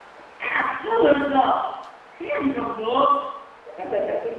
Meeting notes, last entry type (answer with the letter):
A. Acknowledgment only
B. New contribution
B